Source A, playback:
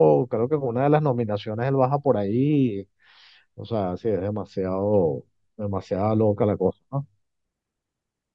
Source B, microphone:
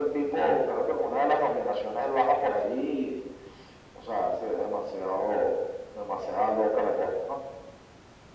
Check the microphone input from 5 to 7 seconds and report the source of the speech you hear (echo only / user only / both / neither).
echo only